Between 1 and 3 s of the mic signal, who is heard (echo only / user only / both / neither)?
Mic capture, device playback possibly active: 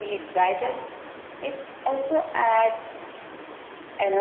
echo only